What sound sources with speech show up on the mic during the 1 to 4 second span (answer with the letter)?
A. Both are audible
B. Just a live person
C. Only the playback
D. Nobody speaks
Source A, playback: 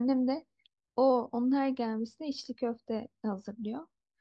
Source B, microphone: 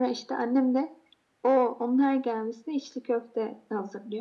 C